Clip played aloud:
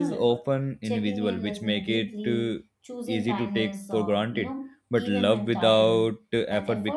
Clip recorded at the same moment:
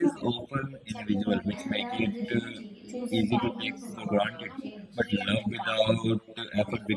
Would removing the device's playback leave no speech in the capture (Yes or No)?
No